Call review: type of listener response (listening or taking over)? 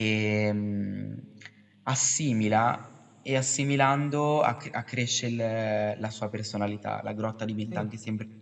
listening